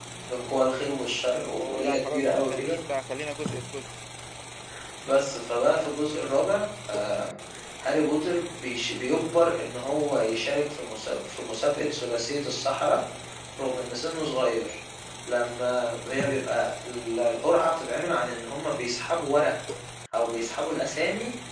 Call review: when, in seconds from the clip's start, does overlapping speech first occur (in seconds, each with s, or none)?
1.5 s